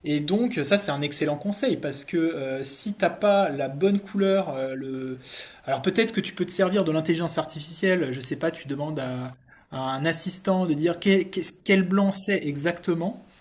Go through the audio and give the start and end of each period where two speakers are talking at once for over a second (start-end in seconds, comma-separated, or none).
none